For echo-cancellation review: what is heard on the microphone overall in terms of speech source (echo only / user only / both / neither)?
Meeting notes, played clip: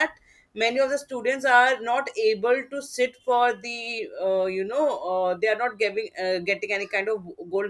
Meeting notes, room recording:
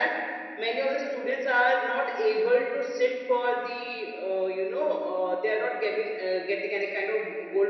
echo only